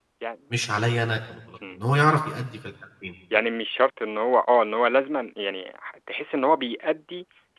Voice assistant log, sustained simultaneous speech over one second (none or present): none